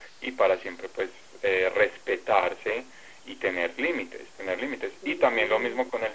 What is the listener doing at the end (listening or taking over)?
listening